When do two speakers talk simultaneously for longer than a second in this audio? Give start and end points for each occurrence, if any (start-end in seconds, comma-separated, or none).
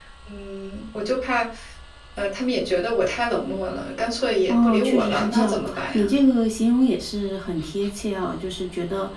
4.5-6.1